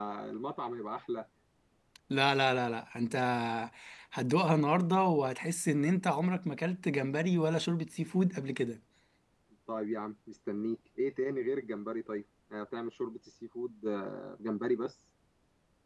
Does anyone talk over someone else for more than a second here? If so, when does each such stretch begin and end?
none

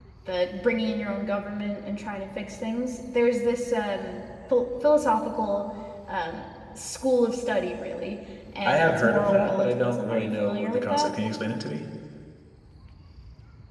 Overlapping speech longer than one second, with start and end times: 8.6-11.1

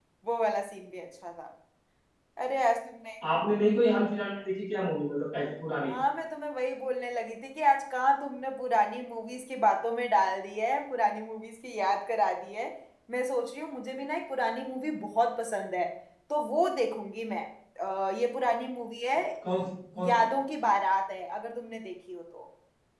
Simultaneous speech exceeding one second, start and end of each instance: none

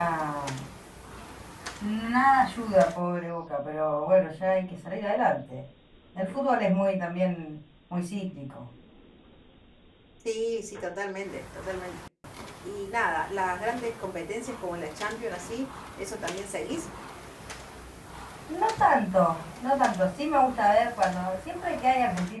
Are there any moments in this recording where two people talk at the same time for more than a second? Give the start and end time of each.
none

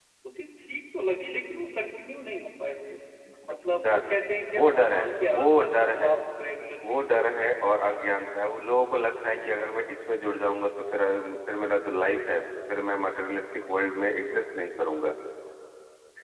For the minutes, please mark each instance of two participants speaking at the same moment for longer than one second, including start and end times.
4.5-6.1

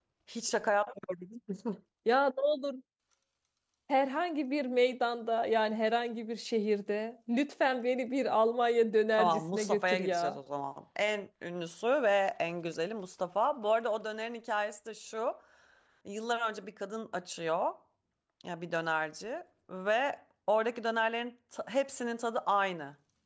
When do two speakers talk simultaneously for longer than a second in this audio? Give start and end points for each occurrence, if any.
9.2-10.4

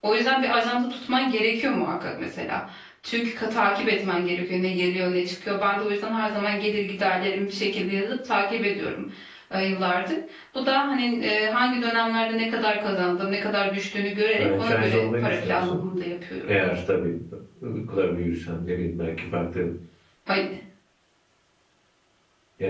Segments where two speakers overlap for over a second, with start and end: 14.4-15.8

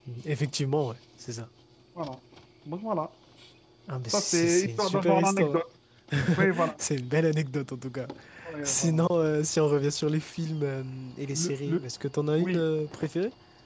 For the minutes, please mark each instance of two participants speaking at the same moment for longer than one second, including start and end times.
4.1-5.6

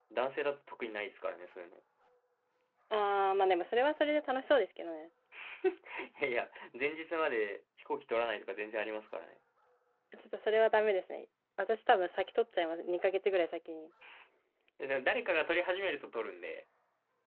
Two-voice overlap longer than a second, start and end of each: none

